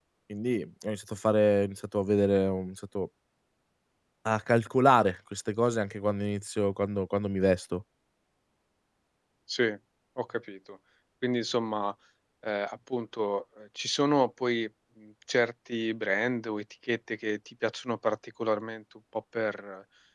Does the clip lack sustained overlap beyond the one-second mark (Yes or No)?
Yes